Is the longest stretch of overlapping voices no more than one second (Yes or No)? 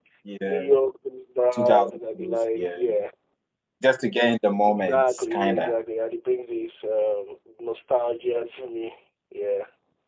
No